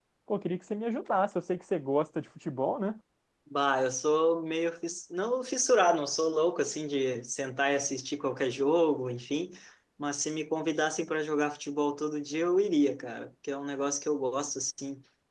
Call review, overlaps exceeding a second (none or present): none